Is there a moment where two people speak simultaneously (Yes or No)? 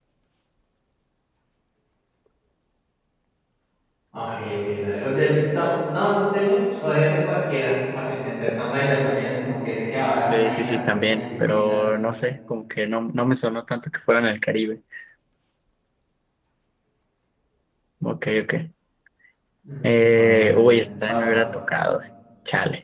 Yes